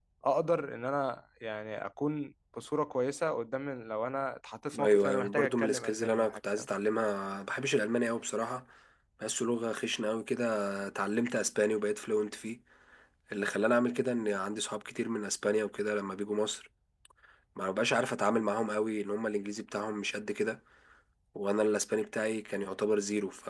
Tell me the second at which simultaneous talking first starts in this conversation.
4.7 s

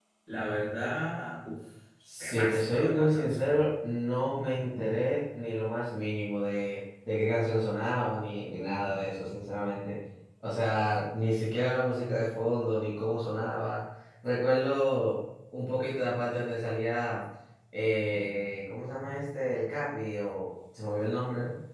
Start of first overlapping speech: 2.2 s

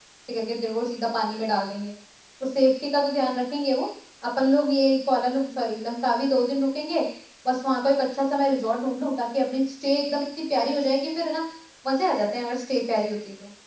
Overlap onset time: none

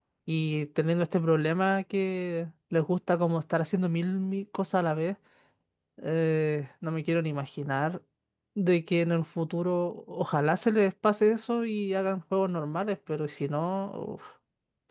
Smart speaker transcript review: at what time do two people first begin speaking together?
none

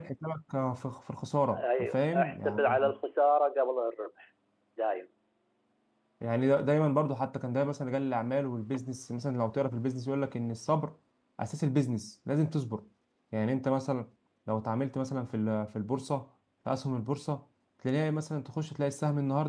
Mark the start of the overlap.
1.5 s

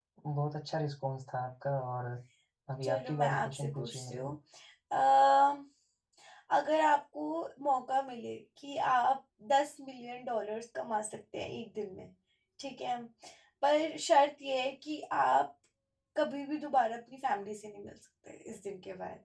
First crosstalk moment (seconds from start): 2.8 s

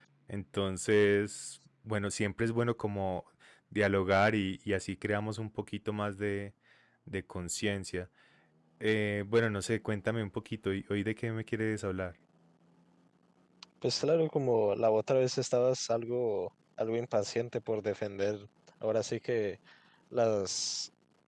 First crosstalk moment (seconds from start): none

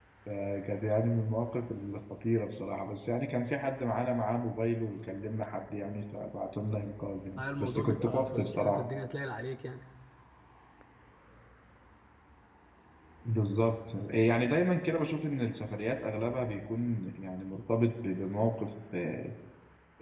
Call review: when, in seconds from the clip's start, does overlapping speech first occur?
7.4 s

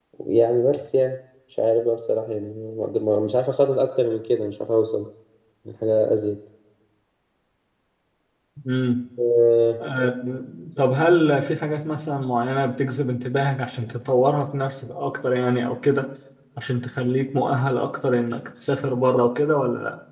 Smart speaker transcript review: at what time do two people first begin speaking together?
none

